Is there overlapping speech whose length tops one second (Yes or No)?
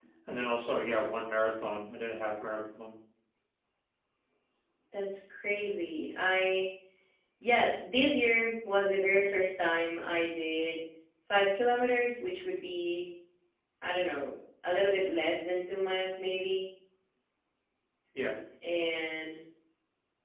No